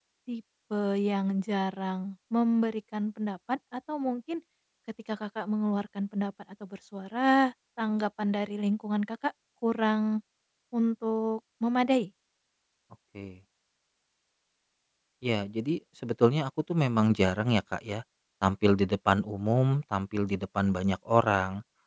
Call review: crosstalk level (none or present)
none